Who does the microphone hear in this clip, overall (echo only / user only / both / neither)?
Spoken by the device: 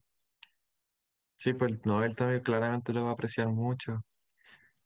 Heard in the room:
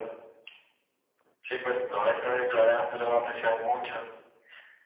echo only